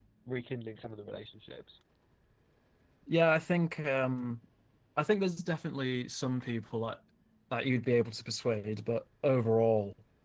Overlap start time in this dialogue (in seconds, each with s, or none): none